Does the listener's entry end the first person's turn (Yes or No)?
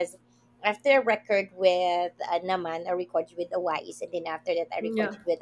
No